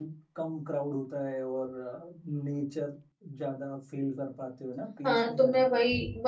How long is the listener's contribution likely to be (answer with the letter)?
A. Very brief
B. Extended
B